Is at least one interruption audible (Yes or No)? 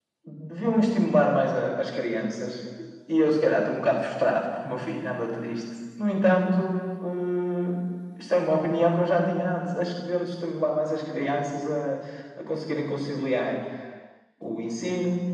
No